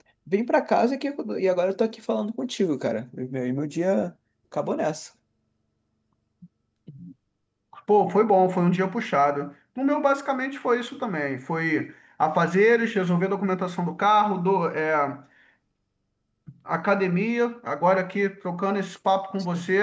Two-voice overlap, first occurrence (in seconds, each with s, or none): none